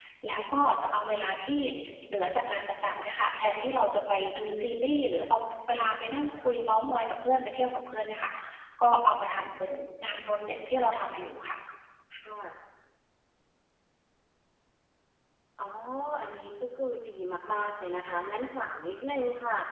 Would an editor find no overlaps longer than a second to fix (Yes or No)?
Yes